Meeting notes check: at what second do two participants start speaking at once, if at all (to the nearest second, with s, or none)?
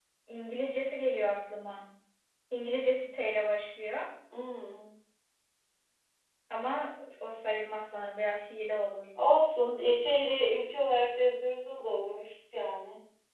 none